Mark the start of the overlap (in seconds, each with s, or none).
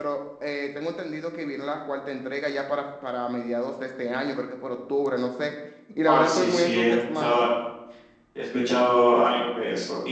6.1 s